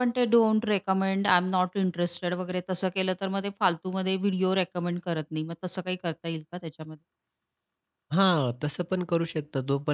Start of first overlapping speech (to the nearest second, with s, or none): none